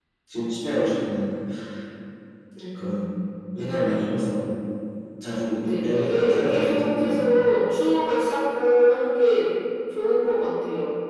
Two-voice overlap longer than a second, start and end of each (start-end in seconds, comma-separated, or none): 5.6-7.4